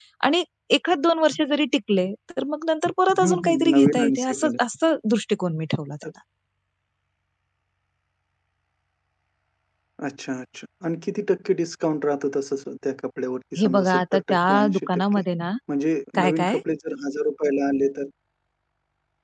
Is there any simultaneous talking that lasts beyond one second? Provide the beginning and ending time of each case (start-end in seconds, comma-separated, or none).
3.2-4.5, 13.6-15.2